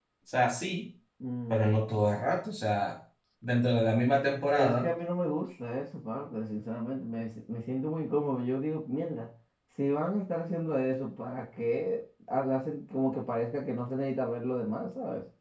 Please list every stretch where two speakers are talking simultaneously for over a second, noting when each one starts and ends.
none

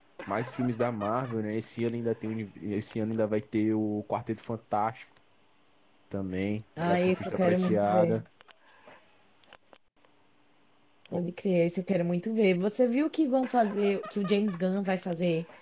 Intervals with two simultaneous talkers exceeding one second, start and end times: 6.8-8.2

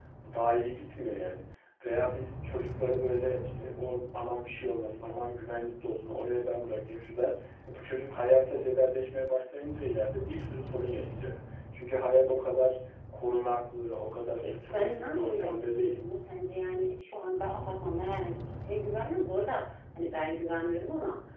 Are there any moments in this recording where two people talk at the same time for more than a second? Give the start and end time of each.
14.4-16.0

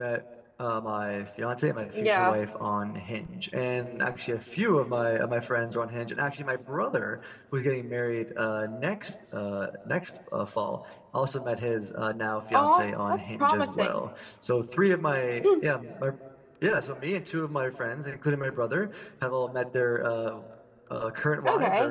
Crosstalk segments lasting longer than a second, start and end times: 12.5-14.0

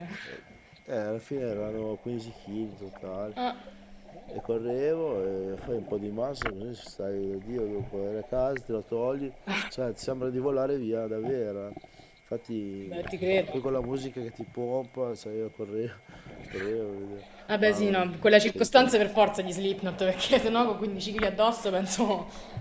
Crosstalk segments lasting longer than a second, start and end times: none

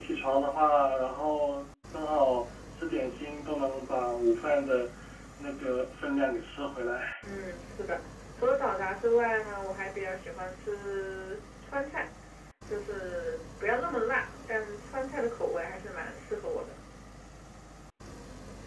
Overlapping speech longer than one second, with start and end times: none

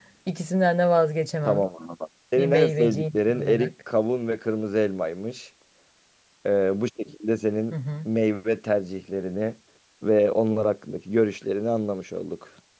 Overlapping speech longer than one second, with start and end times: 2.4-3.7

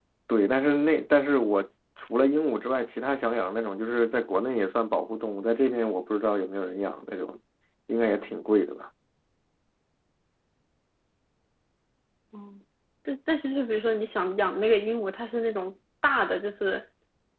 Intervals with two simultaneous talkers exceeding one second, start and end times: none

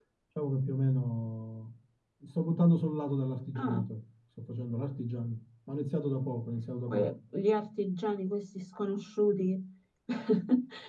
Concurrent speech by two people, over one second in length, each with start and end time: none

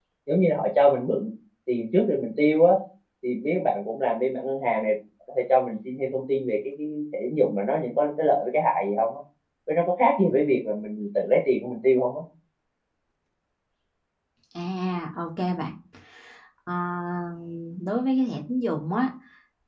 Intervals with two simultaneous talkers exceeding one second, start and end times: none

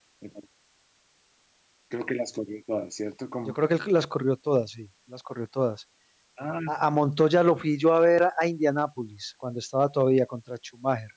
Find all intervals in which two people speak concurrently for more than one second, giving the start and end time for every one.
none

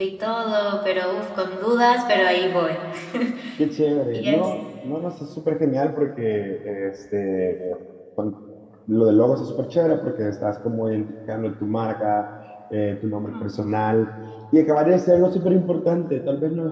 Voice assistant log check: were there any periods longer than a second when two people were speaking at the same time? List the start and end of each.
none

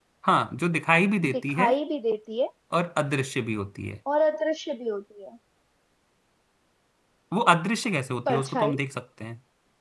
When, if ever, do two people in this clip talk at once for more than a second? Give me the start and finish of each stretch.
none

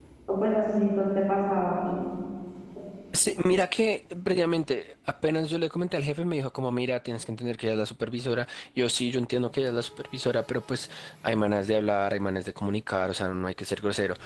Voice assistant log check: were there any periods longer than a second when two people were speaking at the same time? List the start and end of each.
none

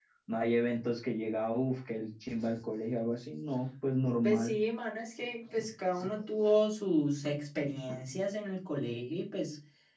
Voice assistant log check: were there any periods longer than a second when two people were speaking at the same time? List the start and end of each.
none

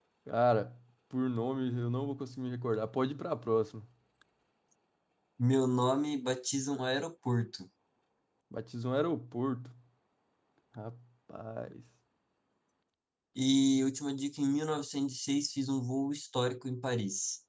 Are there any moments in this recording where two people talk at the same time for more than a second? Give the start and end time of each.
none

